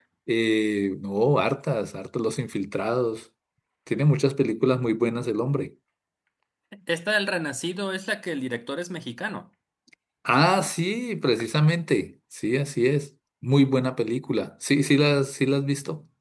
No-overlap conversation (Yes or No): Yes